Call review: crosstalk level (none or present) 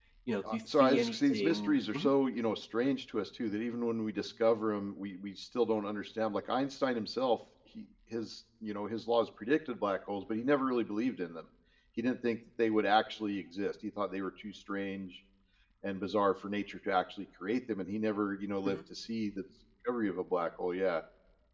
present